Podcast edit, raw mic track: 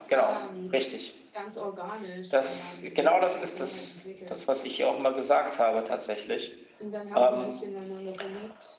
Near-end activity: present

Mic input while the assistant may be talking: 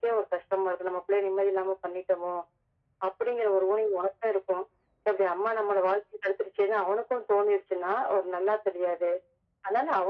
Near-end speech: none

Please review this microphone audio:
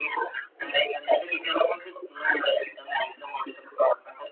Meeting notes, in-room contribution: none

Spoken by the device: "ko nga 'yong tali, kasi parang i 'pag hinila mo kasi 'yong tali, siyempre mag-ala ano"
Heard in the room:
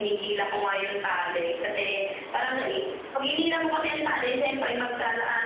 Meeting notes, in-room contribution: none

